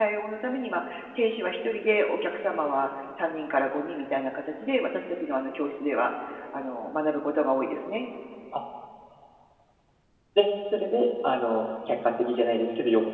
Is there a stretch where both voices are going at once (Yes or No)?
No